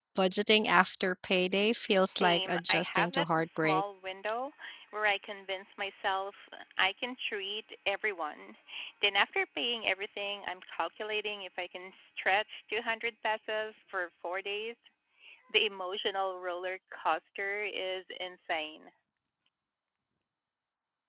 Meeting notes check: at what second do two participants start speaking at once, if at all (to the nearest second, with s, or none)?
2 s